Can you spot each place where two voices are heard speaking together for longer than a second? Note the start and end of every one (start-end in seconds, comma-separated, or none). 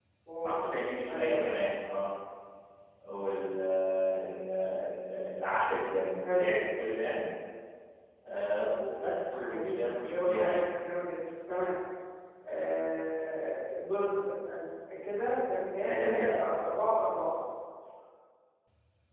9.3-10.6